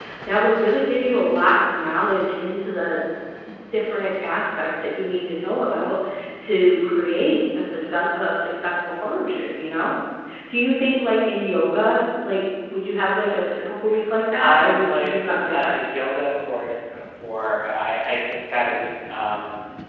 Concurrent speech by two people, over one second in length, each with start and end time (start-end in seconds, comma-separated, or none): 14.4-15.8